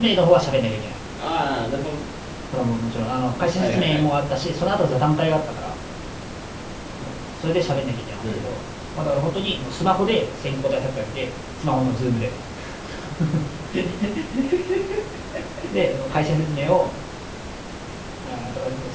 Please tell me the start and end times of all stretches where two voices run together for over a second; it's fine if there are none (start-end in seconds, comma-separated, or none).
none